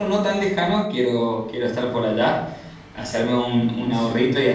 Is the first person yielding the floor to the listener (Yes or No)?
No